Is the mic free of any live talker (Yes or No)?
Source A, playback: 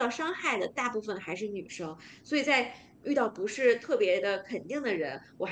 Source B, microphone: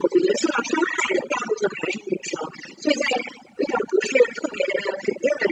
Yes